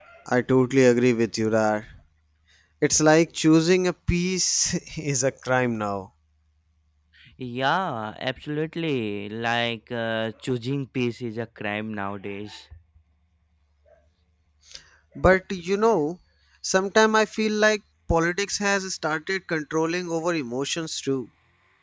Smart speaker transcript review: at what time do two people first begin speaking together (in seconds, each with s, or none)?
none